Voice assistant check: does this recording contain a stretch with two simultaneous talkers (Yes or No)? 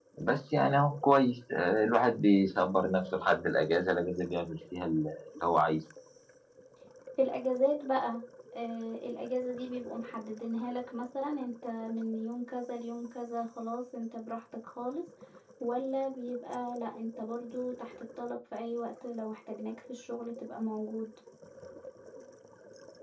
No